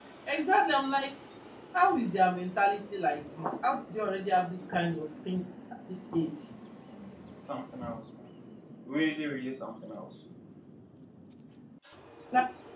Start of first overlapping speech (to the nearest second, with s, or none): none